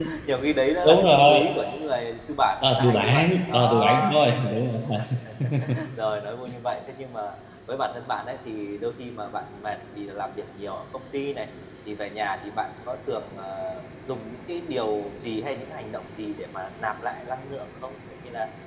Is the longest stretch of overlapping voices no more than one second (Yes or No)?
No